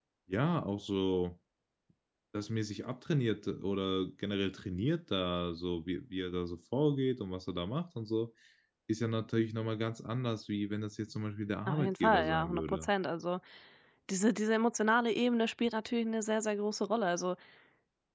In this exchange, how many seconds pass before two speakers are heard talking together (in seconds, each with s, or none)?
11.7 s